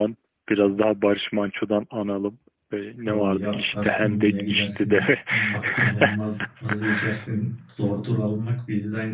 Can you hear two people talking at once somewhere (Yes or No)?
Yes